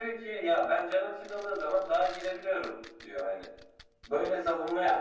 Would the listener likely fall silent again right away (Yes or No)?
Yes